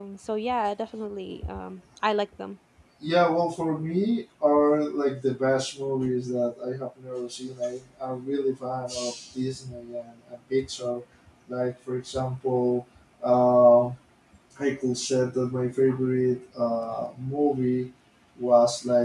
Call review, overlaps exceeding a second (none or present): none